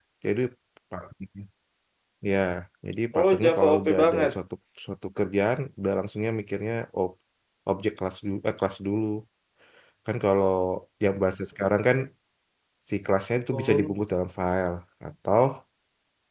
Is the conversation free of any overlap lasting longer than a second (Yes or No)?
No